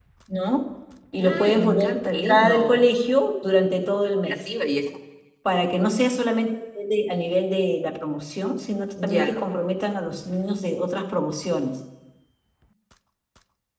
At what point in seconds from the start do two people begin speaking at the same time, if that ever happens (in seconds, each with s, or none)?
1.2 s